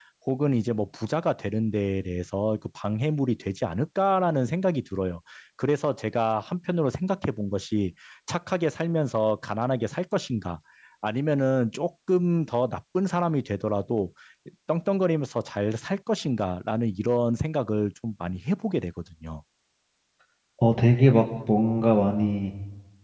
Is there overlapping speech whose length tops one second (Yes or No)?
No